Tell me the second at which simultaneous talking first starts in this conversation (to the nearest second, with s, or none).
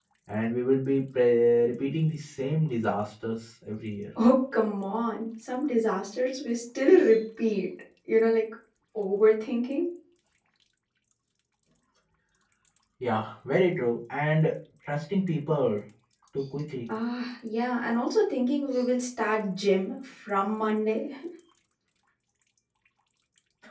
none